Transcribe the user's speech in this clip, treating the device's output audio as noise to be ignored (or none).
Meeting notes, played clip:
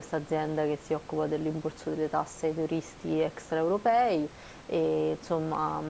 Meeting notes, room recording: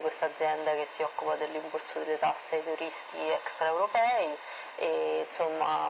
none